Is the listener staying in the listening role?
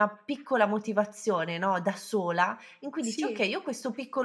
Yes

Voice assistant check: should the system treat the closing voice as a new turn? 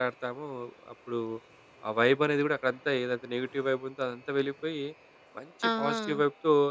No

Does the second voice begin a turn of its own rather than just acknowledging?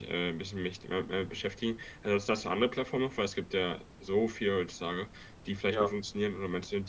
No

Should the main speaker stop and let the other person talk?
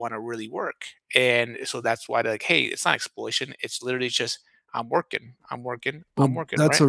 Yes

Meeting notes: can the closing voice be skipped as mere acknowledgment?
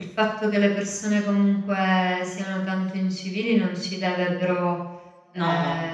Yes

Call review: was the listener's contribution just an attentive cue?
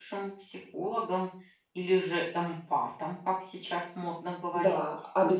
No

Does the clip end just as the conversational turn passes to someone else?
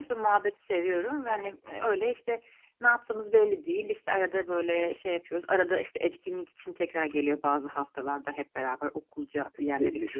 Yes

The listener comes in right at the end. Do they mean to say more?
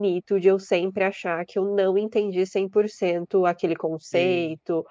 No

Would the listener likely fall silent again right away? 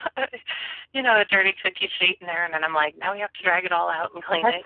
No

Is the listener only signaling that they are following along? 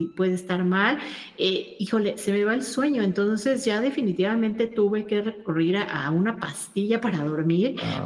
Yes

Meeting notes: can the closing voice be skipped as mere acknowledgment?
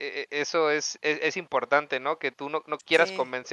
Yes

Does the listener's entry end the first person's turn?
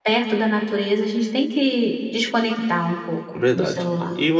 Yes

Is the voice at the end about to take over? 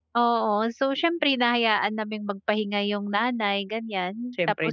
No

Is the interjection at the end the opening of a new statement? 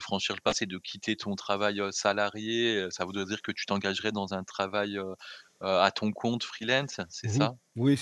Yes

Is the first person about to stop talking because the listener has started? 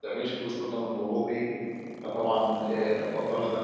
No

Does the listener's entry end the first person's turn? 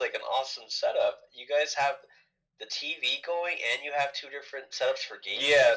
Yes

